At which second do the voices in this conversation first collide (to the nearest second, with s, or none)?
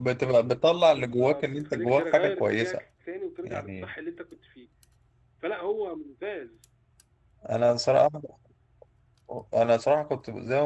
1 s